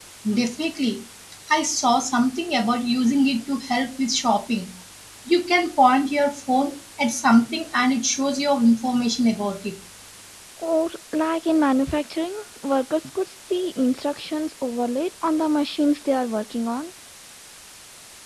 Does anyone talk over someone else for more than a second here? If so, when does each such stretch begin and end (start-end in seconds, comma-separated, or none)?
none